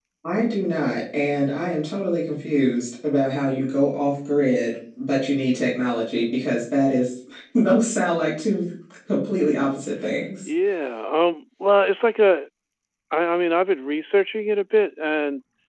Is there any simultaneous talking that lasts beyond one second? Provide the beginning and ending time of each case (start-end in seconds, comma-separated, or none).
none